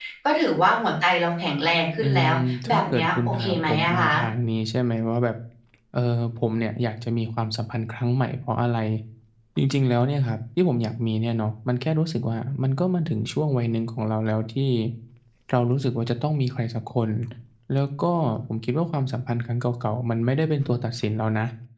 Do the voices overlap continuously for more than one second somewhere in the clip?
Yes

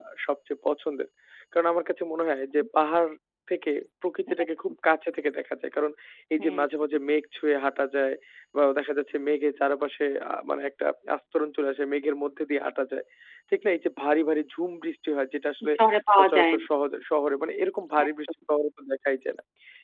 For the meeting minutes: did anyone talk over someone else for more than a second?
No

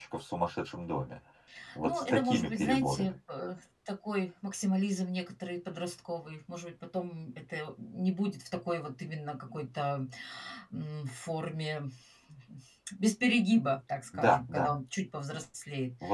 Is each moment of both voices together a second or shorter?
No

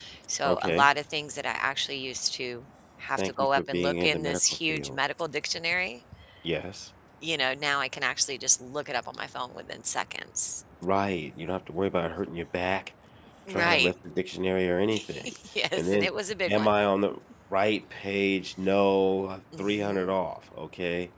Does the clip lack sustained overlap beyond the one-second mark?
No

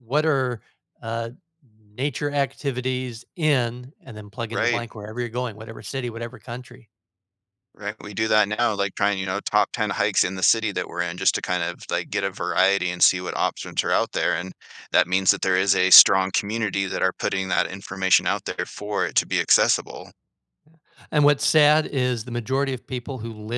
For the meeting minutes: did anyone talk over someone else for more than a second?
No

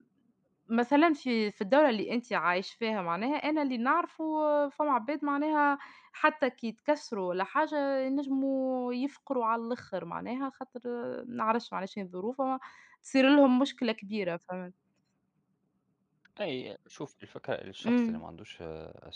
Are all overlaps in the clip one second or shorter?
Yes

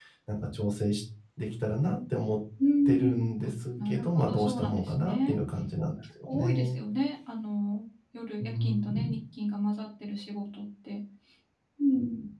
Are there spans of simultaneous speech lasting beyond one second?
Yes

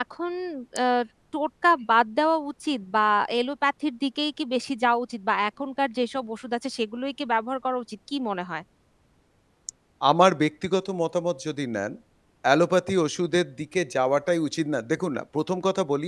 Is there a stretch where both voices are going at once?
No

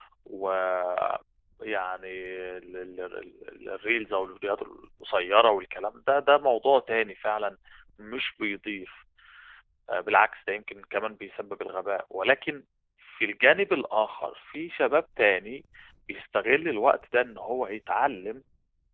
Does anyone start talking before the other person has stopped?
No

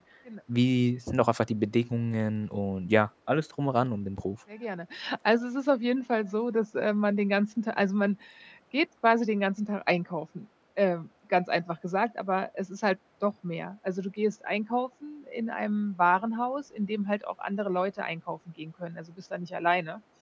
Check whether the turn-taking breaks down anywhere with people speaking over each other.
No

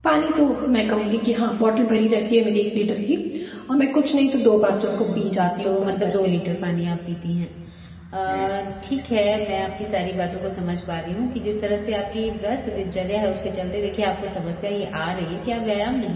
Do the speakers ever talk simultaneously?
Yes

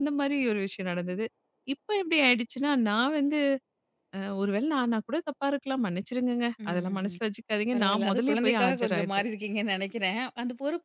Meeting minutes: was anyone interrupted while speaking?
Yes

